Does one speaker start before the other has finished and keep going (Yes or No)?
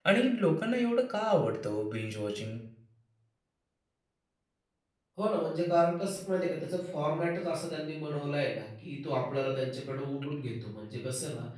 No